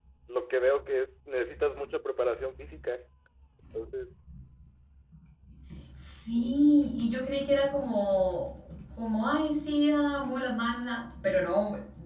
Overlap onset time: none

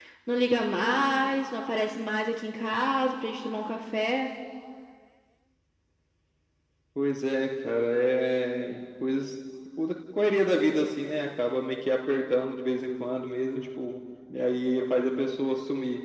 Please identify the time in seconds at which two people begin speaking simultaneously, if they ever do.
none

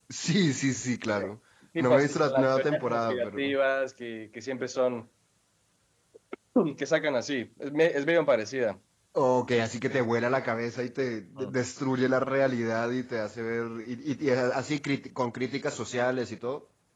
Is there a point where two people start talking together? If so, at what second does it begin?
1.8 s

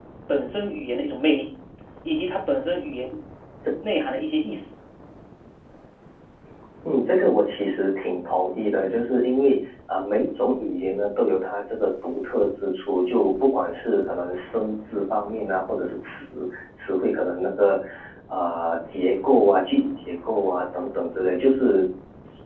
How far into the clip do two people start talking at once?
none

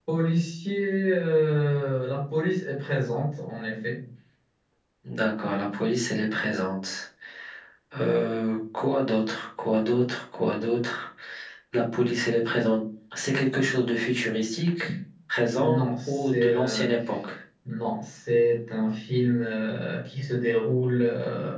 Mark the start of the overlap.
15.6 s

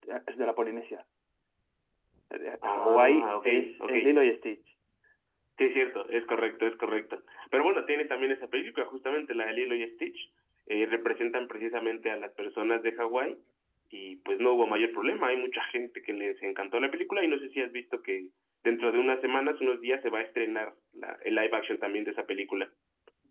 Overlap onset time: 2.6 s

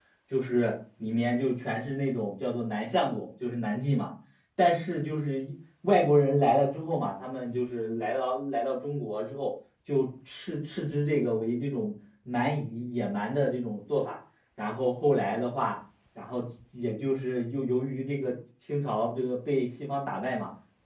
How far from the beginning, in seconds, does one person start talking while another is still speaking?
none

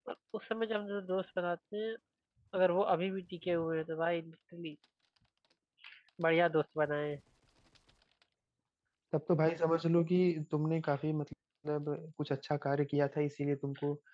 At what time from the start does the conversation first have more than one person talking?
none

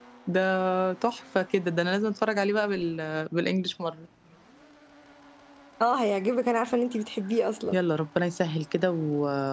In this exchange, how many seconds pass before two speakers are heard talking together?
none

